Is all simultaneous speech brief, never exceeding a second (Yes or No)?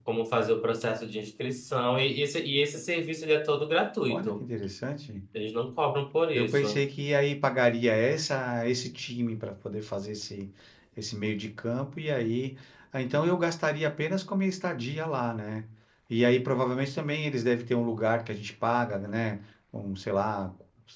Yes